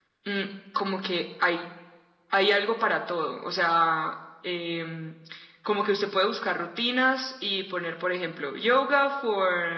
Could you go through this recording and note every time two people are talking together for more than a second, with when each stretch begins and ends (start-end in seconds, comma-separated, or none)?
none